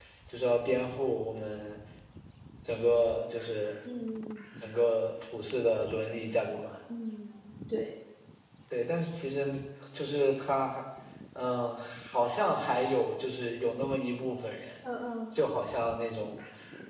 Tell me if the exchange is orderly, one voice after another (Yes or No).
Yes